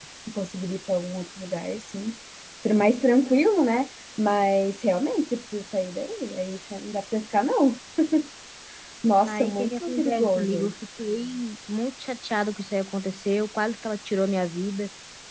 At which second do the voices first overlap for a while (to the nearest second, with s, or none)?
9 s